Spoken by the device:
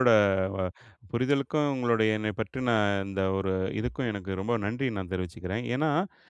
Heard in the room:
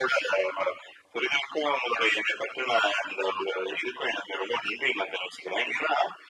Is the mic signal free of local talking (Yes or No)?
Yes